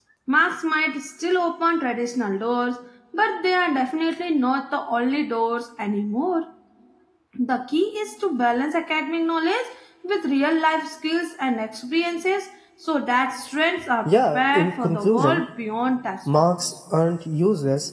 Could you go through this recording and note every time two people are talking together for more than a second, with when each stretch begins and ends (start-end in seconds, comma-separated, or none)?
14.1-15.4